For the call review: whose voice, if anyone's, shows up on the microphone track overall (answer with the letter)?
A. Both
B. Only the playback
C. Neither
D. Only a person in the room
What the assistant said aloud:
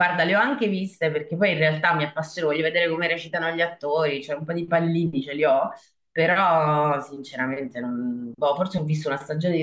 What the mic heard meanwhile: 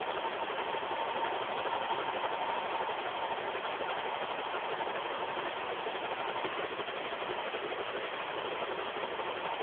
C